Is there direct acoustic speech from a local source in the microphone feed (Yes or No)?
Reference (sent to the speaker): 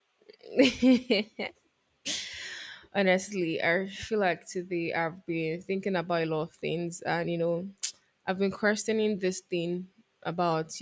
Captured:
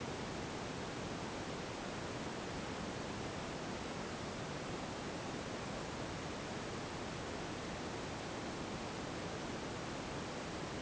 No